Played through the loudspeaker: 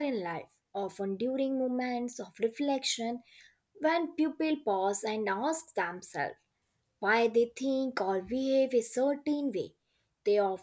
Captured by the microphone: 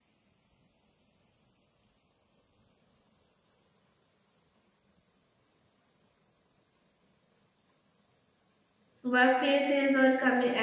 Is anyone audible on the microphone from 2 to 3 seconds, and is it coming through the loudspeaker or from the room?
neither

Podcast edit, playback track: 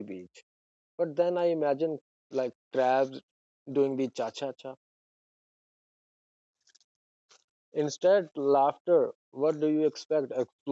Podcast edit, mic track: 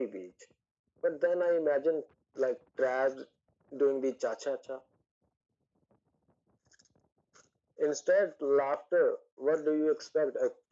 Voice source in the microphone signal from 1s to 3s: echo only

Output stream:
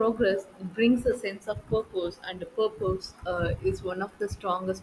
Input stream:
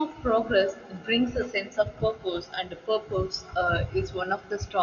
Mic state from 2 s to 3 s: echo only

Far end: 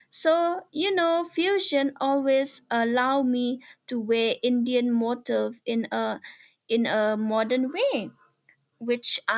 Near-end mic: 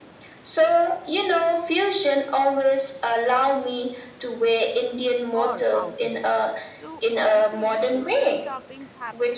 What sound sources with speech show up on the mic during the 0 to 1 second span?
echo only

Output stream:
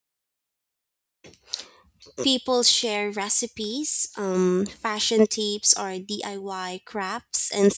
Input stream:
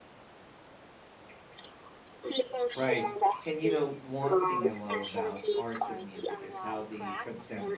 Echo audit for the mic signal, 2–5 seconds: both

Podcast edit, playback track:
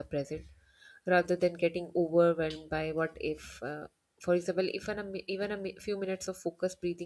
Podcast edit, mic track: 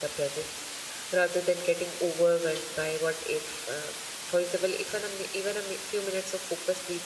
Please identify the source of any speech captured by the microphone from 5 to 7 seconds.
echo only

